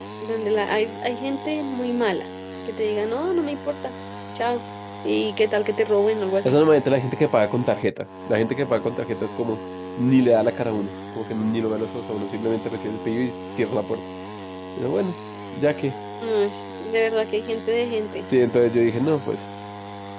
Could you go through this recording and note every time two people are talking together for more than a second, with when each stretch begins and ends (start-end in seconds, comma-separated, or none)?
none